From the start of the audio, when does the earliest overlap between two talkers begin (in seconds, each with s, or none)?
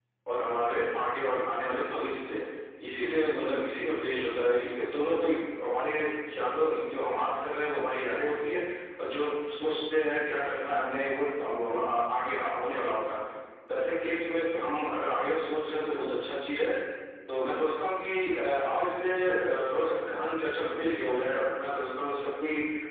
none